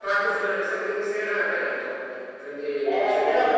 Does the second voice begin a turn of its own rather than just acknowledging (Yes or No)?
Yes